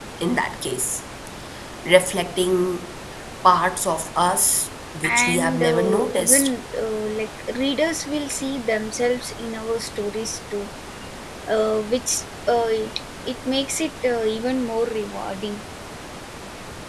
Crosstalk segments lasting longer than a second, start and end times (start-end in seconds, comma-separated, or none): 5.0-6.5